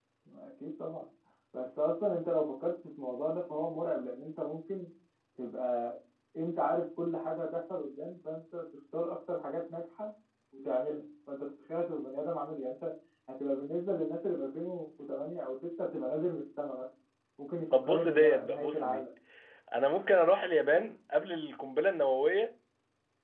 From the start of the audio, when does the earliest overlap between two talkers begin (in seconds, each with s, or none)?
17.7 s